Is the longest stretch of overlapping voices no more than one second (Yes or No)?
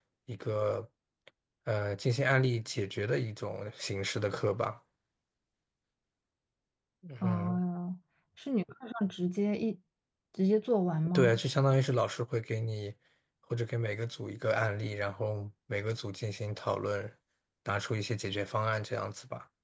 Yes